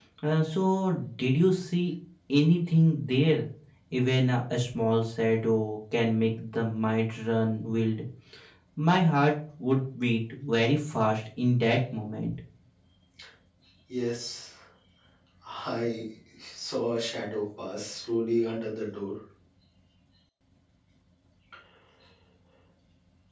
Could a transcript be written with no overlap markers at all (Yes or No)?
Yes